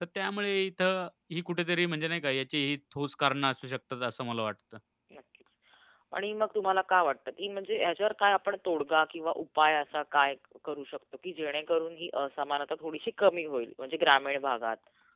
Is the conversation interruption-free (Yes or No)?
Yes